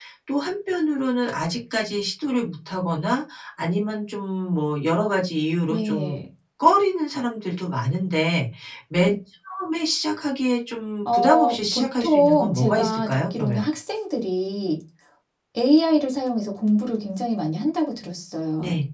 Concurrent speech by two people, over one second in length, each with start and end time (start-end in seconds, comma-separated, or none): 11.1-13.7